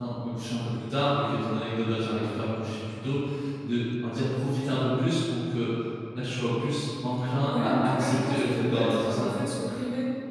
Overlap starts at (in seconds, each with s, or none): 7.4 s